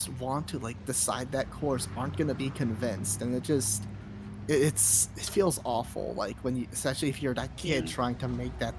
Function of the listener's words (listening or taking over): listening